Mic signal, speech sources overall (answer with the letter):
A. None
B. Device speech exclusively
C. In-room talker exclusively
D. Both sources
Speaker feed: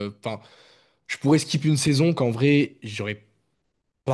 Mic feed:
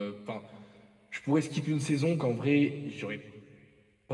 B